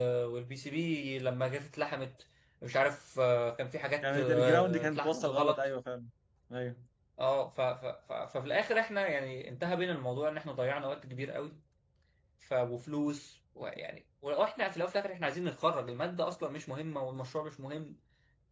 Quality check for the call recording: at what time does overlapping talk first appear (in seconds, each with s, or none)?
4.0 s